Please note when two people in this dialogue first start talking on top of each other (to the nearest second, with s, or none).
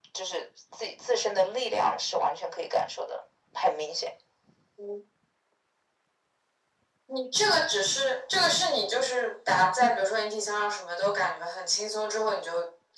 none